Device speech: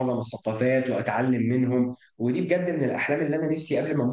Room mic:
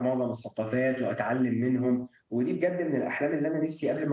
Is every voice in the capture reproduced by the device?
Yes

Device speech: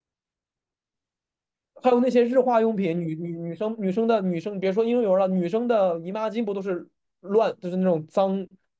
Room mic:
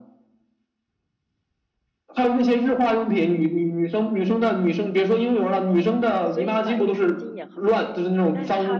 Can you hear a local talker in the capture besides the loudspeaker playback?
Yes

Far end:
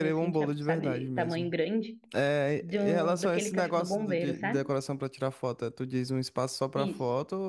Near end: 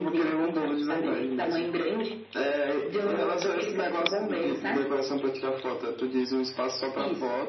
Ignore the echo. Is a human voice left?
No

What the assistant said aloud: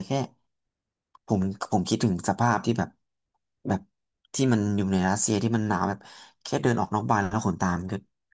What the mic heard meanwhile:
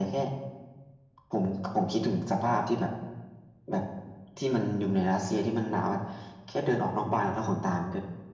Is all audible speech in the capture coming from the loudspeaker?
Yes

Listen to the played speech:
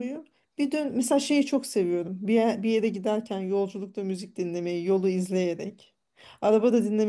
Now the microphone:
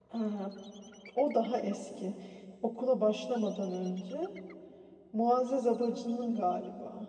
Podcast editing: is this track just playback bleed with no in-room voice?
No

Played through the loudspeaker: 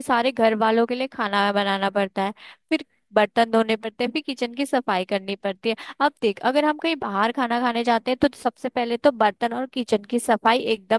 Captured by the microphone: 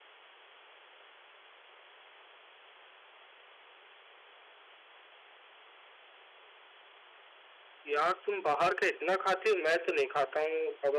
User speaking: Yes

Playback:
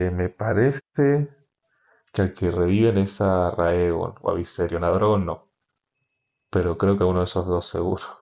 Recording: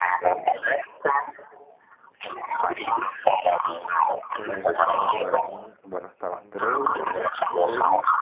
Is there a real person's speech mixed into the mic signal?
Yes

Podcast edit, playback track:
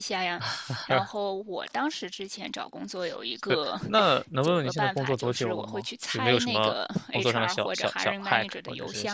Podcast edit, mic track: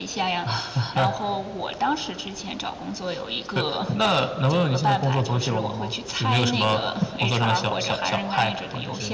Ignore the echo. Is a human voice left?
No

